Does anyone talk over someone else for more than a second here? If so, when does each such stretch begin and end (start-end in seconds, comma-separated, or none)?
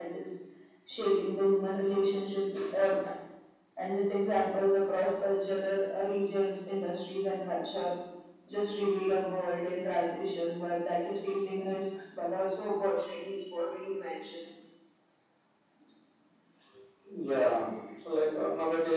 none